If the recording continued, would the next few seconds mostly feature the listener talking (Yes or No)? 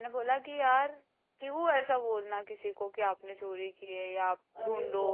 Yes